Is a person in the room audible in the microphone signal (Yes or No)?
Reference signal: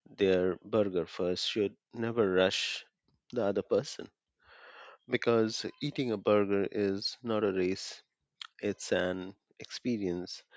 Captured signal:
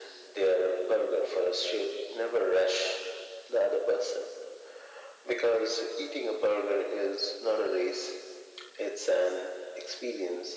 No